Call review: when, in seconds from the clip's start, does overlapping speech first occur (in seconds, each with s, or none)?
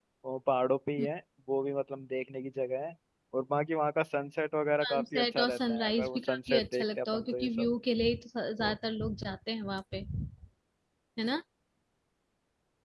4.8 s